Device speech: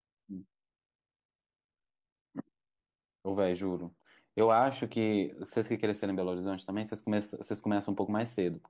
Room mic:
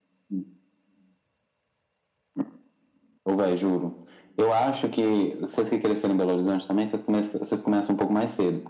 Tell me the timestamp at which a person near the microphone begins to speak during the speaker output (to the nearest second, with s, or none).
none